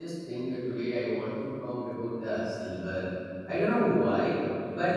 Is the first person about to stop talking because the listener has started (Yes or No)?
No